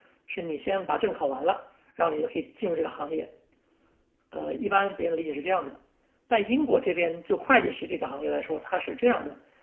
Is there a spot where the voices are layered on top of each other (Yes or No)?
No